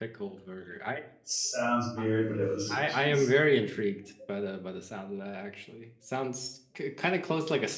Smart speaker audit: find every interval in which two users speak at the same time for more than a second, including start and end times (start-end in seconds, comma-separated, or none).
none